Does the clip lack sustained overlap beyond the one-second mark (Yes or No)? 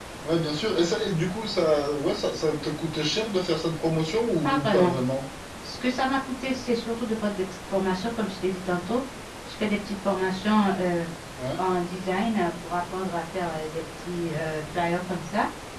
Yes